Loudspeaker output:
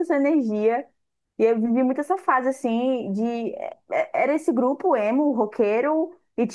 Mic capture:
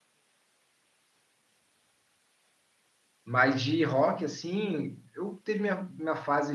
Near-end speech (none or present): present